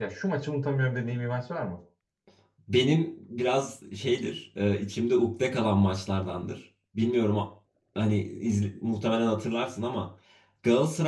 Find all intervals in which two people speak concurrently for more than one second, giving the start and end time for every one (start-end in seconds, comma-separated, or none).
none